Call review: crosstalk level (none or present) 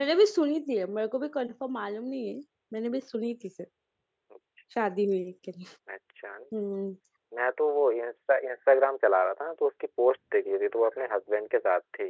none